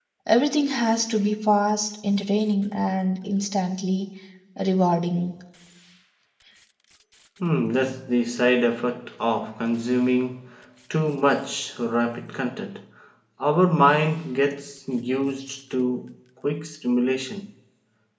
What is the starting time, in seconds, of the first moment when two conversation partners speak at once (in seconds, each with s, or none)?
none